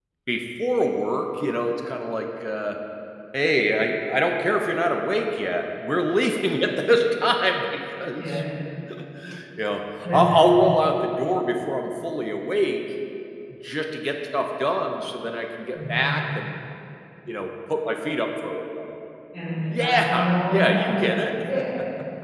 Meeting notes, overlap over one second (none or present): present